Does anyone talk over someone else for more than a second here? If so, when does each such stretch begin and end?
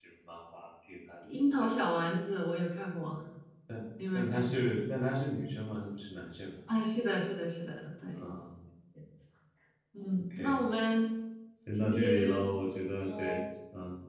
11.7-13.4

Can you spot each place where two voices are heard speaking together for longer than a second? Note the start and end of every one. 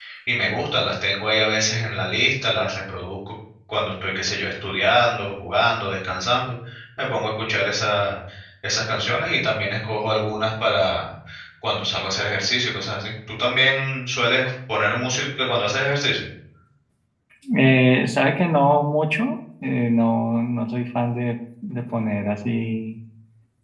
none

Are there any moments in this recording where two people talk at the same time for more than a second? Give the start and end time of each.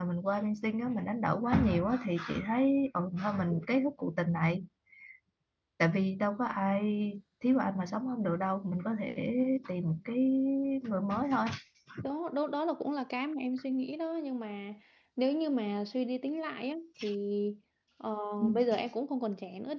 none

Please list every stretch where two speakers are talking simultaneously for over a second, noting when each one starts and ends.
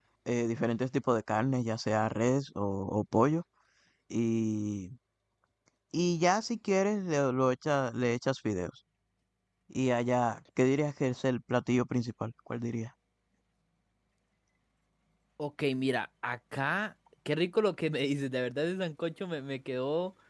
none

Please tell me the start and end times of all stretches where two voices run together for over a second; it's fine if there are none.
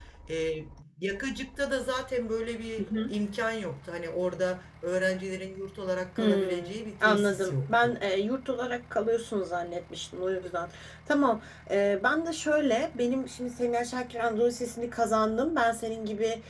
6.2-8.0

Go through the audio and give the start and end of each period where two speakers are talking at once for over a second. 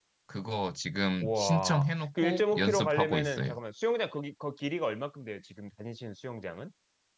1.2-3.5

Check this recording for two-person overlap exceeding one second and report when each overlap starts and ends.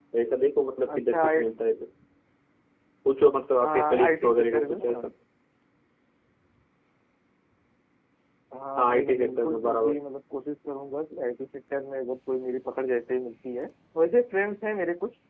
3.6-5.0, 8.8-10.0

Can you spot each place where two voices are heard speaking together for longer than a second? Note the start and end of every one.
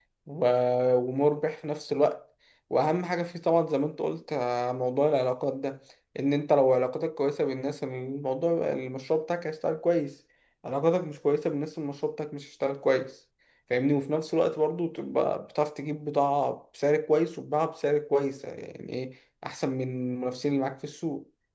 none

